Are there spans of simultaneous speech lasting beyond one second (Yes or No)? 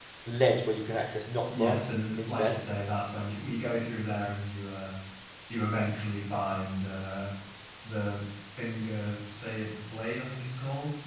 No